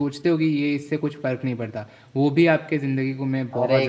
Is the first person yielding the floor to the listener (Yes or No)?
Yes